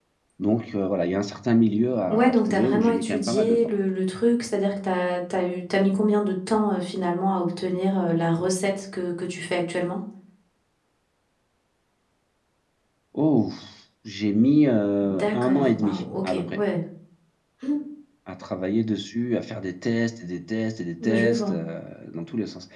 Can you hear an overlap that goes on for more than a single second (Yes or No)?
Yes